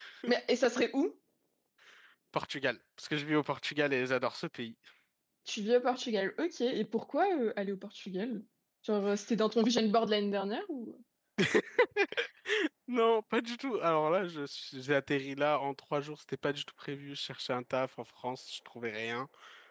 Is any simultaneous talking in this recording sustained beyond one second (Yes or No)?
No